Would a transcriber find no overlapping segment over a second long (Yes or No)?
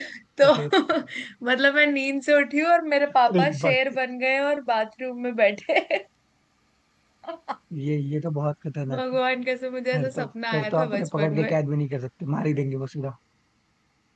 No